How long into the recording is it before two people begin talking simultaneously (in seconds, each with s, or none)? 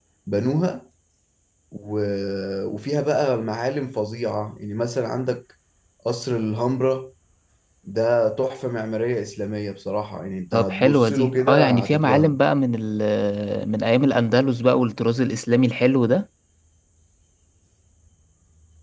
10.5 s